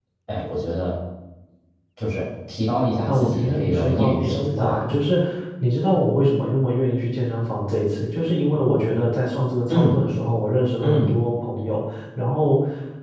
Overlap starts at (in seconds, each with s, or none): 3.0 s